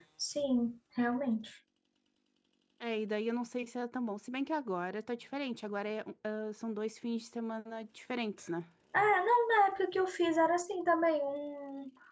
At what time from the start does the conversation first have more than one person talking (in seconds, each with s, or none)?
none